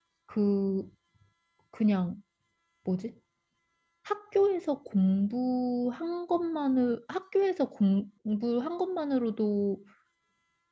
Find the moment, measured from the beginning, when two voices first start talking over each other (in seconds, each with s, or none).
none